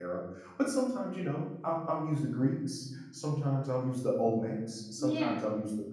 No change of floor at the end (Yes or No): Yes